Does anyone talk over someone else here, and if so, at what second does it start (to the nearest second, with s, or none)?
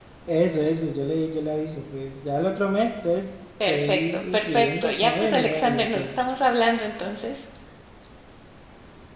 4 s